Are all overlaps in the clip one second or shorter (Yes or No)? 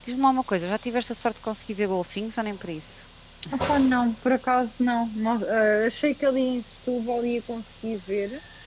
Yes